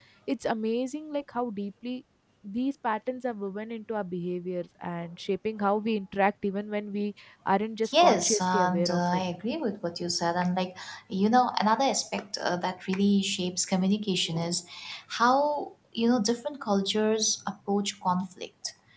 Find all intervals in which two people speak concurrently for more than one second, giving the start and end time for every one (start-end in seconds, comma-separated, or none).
7.9-9.2